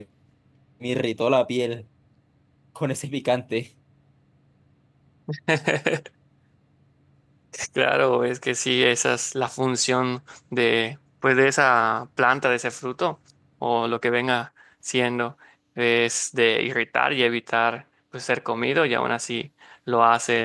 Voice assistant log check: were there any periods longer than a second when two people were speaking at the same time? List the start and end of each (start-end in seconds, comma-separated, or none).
none